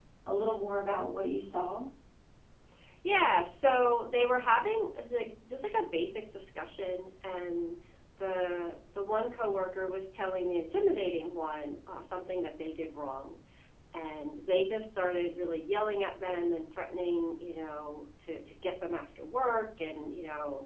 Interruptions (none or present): none